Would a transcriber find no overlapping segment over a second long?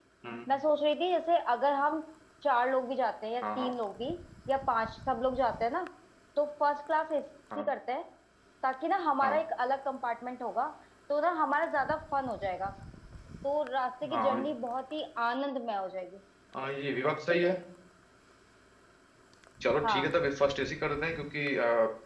Yes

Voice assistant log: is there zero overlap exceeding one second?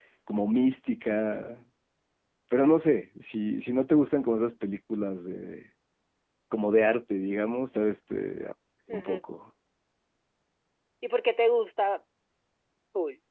Yes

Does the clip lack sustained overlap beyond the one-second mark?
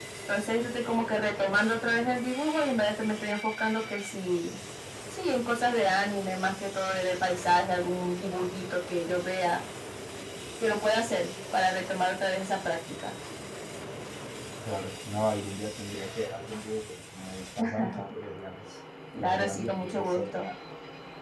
No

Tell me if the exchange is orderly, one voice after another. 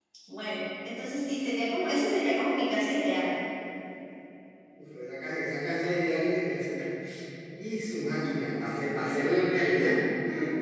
Yes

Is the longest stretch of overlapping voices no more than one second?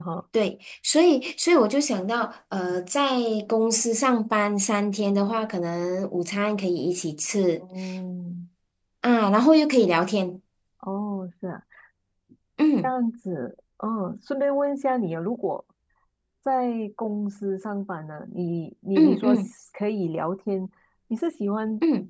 Yes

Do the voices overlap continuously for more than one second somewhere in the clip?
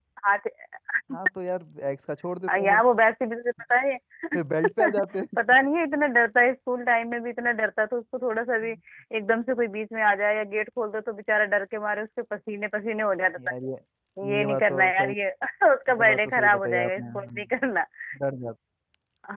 Yes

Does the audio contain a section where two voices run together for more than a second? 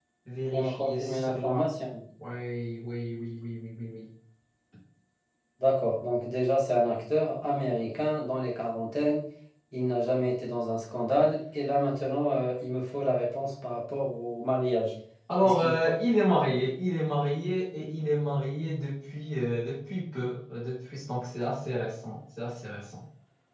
Yes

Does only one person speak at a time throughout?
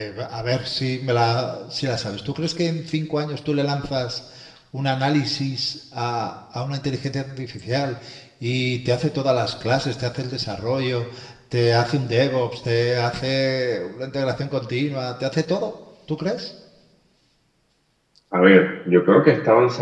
Yes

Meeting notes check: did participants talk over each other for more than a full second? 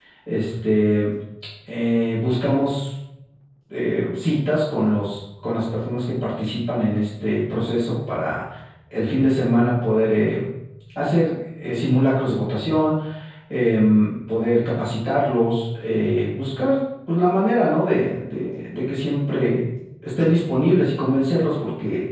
No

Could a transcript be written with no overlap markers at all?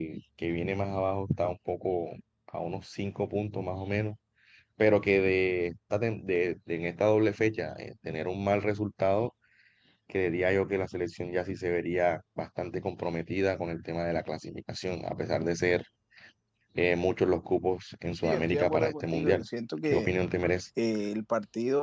No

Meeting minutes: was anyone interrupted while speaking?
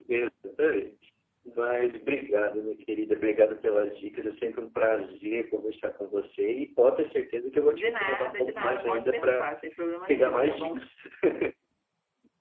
Yes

